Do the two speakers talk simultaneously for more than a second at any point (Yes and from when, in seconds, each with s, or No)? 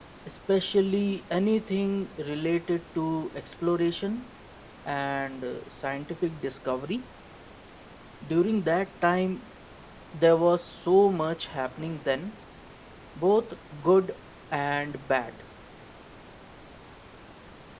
No